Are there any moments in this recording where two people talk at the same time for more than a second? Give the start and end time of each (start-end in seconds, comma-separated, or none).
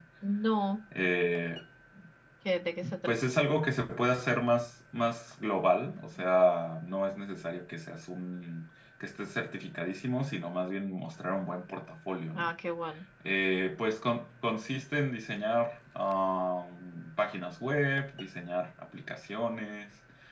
none